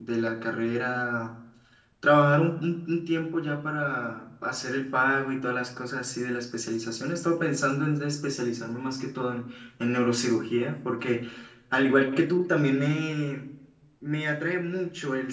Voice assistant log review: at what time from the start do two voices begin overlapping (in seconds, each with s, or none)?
none